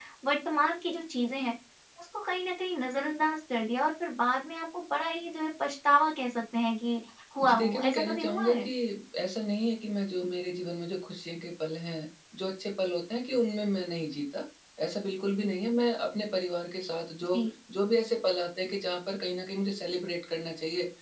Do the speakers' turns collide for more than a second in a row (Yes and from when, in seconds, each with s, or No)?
Yes, from 7.4 s